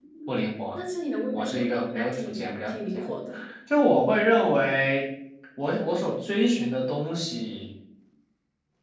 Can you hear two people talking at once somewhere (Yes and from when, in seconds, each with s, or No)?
Yes, from 1.3 s